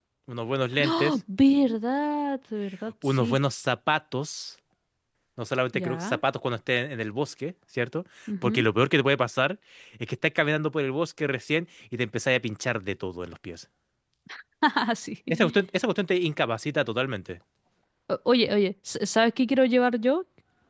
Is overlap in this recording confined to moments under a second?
Yes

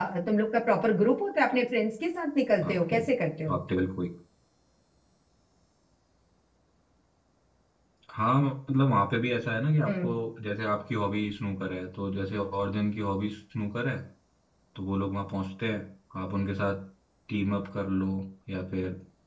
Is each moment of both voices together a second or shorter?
Yes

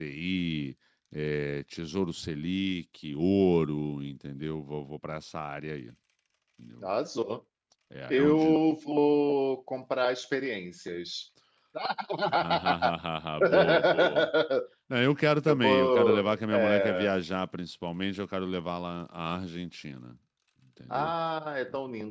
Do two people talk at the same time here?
Yes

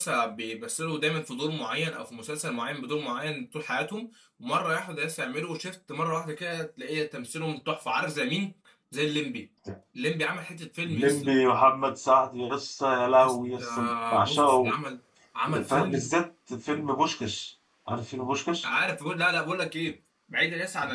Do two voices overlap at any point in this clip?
Yes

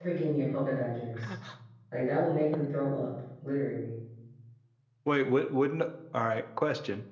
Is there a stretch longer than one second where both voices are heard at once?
No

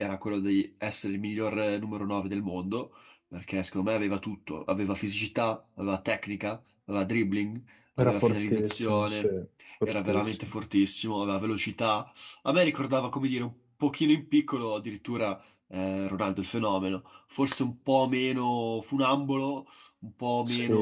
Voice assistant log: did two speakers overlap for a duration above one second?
Yes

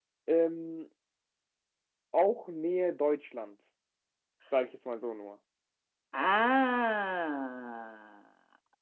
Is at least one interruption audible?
No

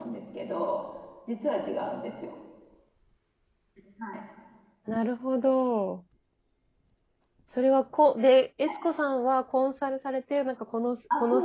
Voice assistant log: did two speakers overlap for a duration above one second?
No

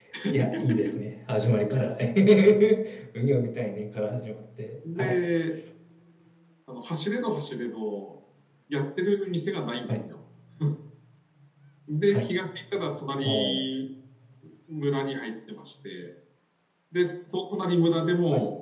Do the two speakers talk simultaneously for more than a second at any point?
No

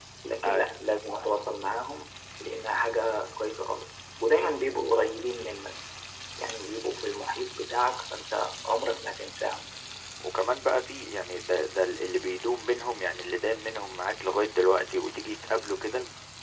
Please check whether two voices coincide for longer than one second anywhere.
No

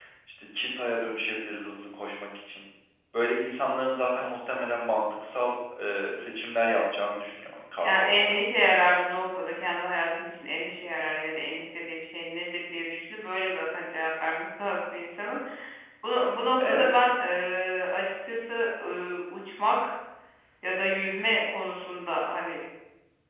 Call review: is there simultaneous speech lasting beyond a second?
Yes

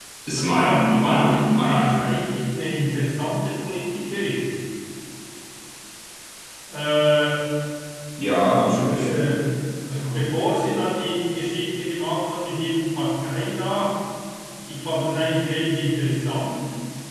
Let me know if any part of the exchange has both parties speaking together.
Yes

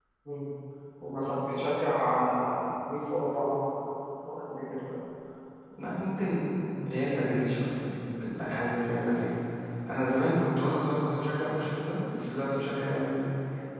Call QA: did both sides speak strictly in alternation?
Yes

